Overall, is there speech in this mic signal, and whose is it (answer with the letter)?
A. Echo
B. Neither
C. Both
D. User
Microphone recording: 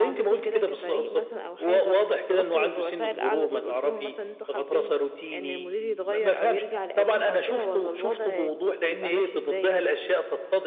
C